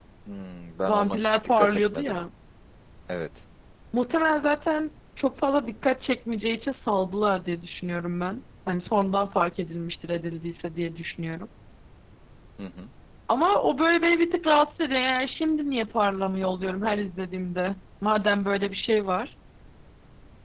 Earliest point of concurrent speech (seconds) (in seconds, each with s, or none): 0.9 s